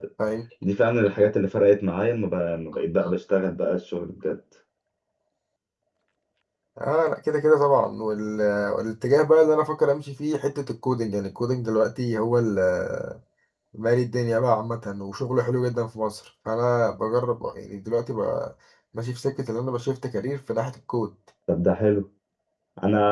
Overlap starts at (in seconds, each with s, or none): none